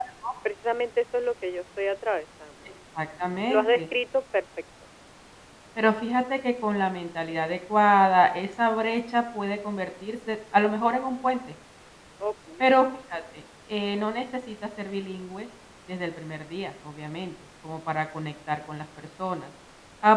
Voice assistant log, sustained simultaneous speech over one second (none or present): none